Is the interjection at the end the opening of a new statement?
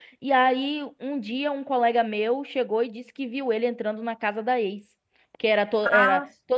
No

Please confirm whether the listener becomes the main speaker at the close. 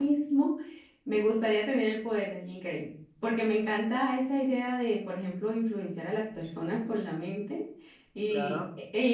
No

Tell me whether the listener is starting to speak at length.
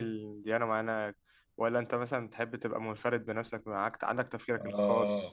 Yes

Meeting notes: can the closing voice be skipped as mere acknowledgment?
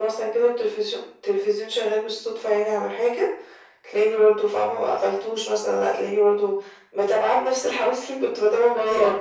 No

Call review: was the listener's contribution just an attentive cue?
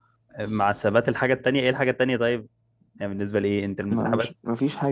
No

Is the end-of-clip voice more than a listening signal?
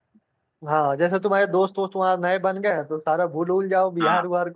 No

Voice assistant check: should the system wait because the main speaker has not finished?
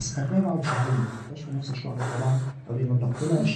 Yes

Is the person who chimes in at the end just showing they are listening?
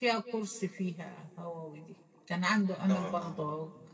Yes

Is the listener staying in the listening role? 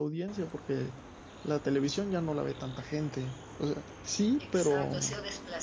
No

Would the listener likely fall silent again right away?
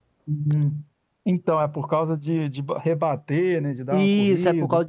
No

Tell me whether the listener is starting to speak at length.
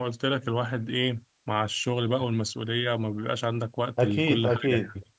Yes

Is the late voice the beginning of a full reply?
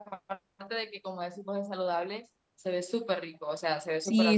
Yes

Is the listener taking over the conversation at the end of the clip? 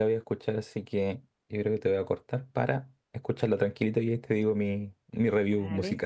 Yes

